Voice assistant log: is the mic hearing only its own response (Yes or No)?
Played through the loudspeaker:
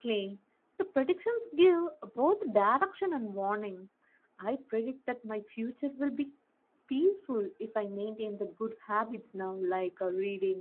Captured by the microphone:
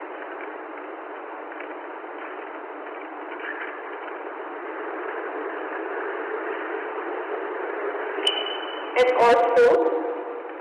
No